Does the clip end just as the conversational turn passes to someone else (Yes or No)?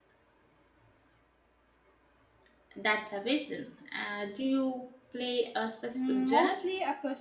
Yes